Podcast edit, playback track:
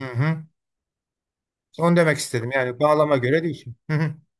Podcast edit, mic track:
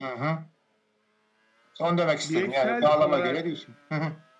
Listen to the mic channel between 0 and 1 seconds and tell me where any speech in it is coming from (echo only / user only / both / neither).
echo only